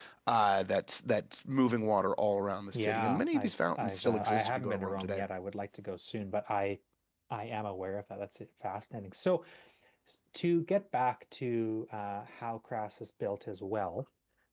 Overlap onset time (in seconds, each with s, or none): 2.7 s